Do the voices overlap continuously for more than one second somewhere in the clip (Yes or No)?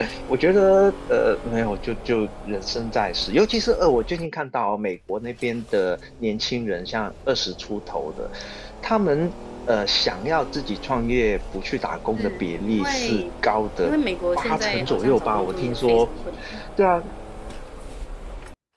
Yes